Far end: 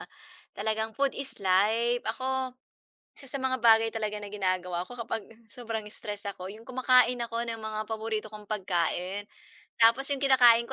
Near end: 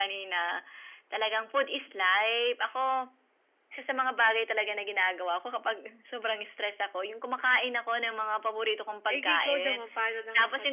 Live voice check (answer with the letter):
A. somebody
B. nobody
A